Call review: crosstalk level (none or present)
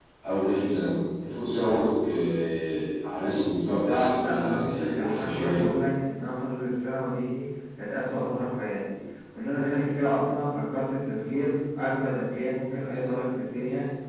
present